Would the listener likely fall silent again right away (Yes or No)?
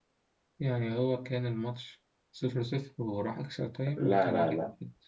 No